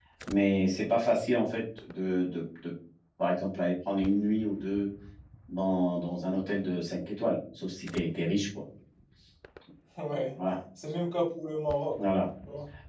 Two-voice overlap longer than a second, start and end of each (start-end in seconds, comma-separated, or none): none